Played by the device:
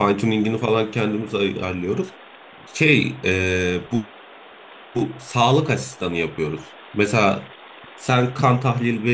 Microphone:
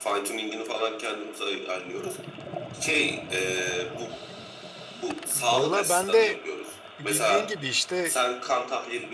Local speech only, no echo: Valla ben de bildiğin gibi işte

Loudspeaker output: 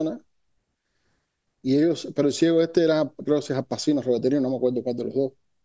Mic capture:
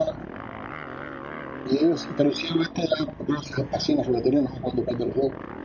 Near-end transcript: none

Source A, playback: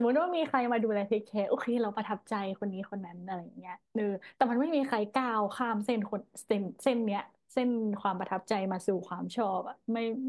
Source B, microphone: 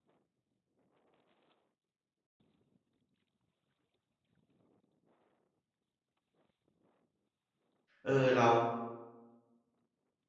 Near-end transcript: เออเรา

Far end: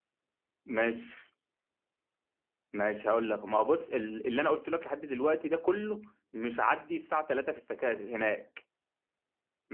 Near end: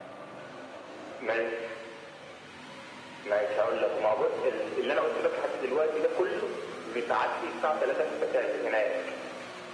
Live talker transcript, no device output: none

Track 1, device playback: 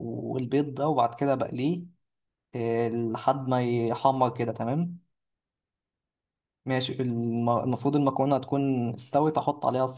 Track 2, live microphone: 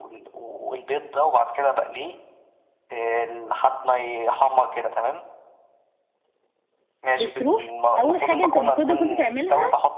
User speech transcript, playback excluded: بتروح اول حاجه انت المفروض ان كنت تعملها

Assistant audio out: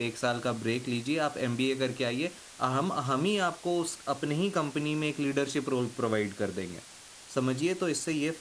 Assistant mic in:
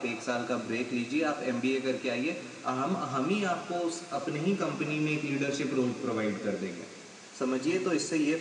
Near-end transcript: none

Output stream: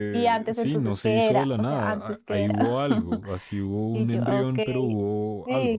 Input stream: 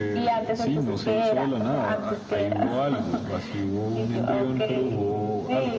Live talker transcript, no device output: none

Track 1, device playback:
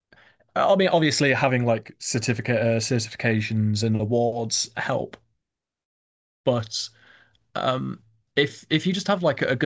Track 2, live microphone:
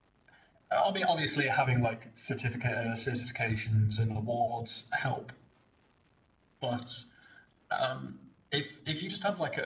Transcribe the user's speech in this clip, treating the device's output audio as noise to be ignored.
none

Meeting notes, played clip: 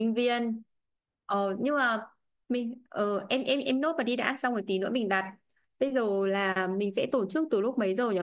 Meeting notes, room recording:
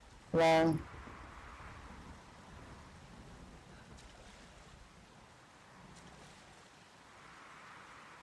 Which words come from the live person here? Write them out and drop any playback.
Vâng.

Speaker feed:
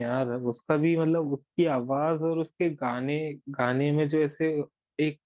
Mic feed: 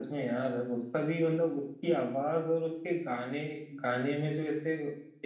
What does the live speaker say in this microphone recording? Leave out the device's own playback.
none

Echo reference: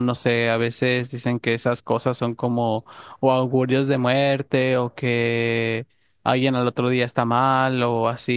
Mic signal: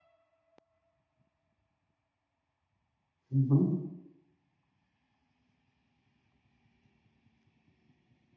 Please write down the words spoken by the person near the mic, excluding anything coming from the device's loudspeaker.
Ujú.

